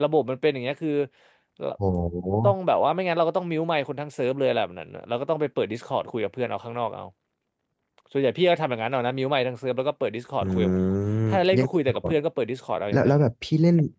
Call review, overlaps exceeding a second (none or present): none